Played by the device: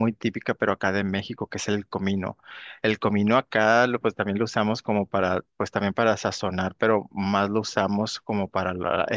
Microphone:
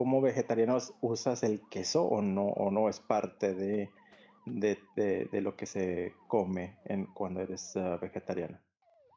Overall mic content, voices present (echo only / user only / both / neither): user only